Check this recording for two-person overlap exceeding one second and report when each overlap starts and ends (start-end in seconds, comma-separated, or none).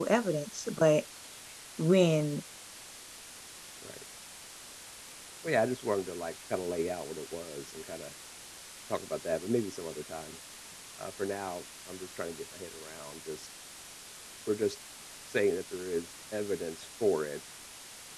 none